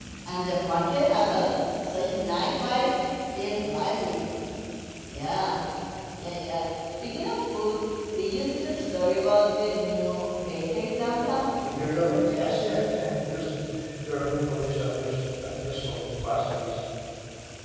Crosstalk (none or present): none